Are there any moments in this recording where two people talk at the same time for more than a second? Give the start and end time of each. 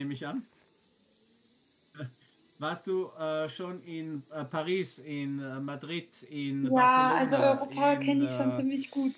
6.6-8.6

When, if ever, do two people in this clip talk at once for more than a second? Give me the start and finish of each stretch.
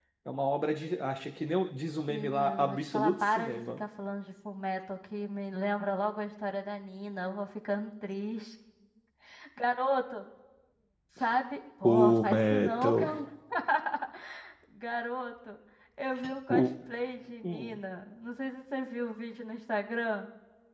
2.1-3.8, 11.8-13.1

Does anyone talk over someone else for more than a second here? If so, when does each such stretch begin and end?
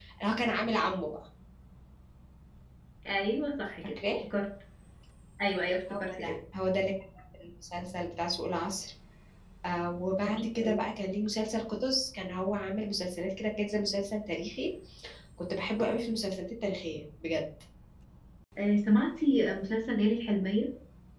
none

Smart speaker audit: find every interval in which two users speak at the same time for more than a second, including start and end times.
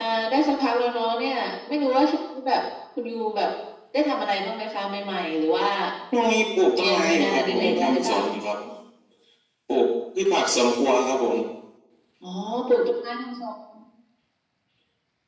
6.8-8.2

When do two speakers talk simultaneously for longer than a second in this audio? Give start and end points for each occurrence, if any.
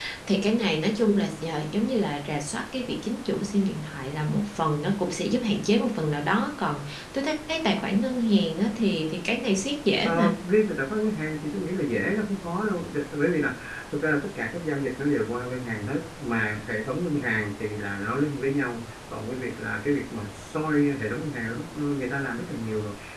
none

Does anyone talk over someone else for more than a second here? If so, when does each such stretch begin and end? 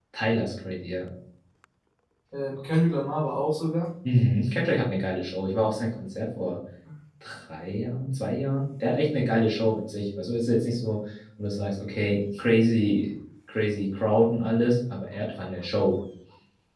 none

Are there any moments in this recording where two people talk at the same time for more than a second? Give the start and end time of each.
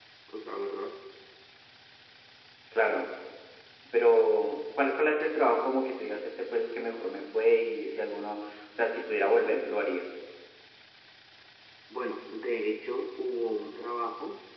none

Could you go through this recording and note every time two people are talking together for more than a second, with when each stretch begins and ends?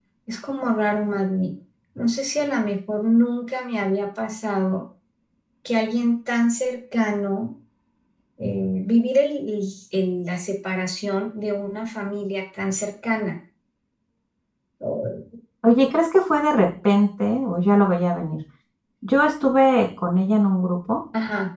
none

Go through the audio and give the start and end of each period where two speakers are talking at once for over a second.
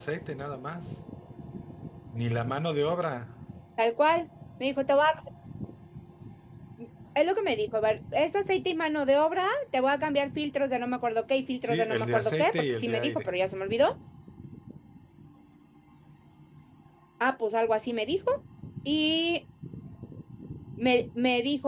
11.6-13.3

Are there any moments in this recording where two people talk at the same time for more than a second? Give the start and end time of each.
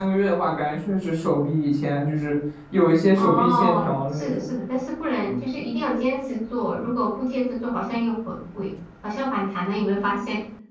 3.2-4.5

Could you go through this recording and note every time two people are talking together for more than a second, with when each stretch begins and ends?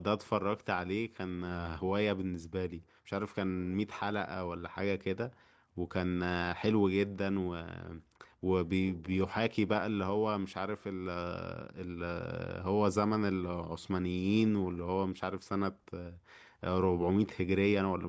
none

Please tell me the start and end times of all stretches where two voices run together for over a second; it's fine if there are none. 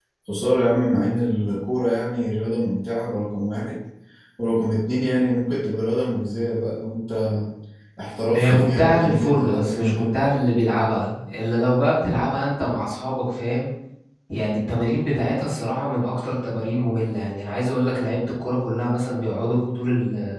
8.3-10.3

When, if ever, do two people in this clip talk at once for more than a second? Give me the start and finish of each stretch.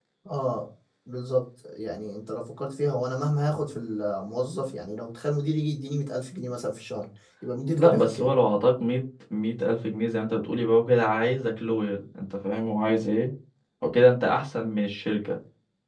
none

